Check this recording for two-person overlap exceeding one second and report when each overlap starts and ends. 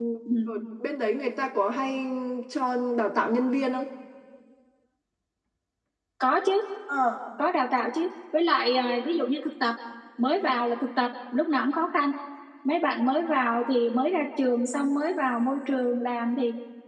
none

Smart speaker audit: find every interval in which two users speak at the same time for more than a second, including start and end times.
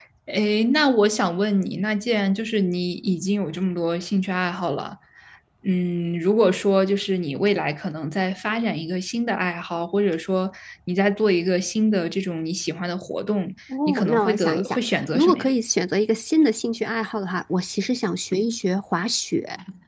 13.9-15.5

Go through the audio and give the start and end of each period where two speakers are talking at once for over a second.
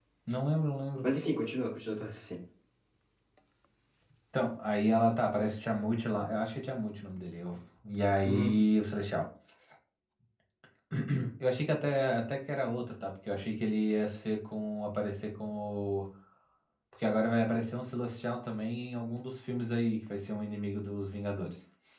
none

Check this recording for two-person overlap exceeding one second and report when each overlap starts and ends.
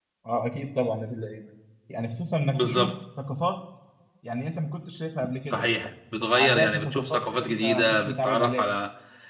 6.3-8.7

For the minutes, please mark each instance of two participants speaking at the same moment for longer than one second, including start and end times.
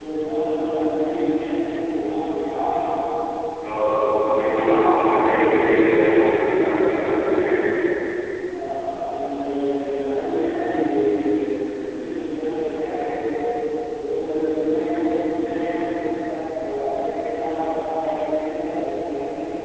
3.9-5.7

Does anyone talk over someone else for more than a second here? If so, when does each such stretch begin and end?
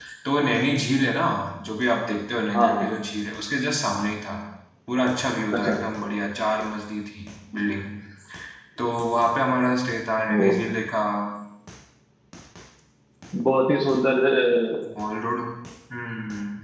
none

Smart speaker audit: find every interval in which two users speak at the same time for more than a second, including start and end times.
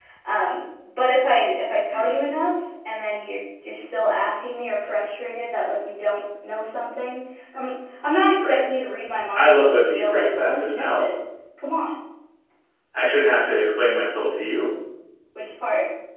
9.3-11.1

